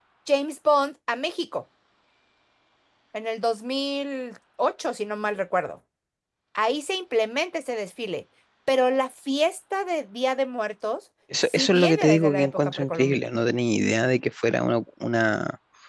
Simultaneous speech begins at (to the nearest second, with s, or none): 11 s